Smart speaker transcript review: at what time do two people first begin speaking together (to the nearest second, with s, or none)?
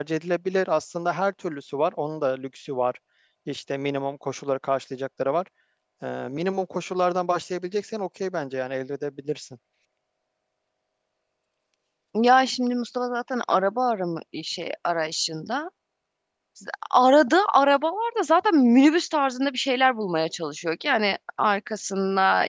none